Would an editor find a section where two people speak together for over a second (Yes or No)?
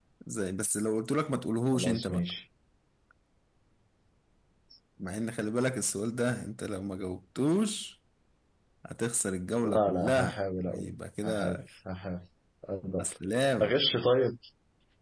Yes